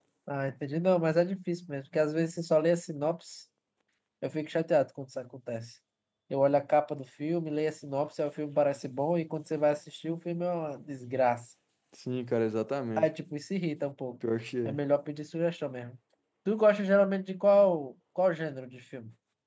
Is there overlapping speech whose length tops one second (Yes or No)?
No